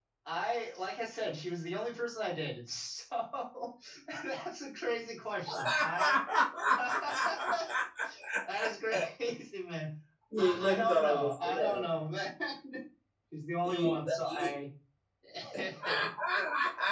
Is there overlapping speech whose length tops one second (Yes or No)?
Yes